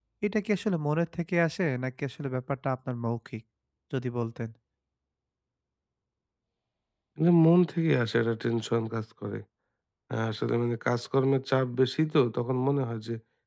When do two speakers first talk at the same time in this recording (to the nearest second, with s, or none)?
none